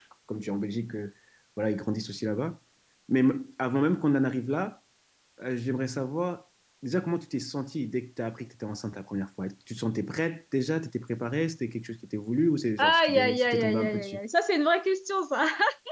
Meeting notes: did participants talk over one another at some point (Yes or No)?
Yes